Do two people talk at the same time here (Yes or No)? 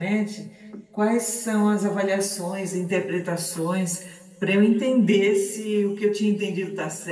No